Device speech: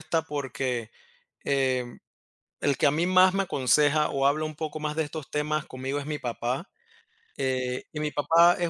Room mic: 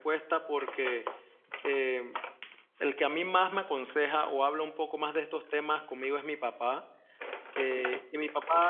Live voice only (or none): none